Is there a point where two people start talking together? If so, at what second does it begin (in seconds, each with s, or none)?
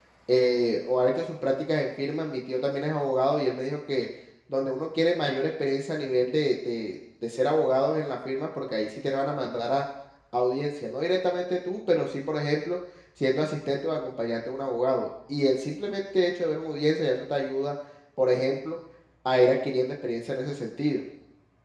none